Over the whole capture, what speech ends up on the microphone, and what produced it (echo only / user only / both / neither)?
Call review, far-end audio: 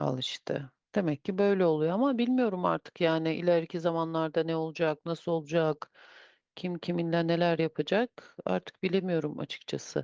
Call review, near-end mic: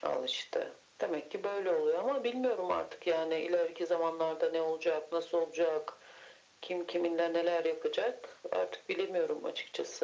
echo only